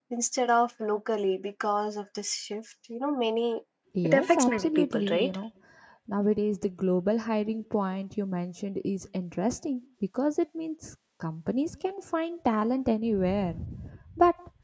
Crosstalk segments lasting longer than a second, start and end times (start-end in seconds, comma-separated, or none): 4.0-5.3